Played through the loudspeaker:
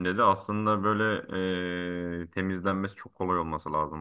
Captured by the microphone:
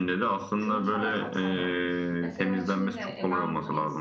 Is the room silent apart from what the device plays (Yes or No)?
No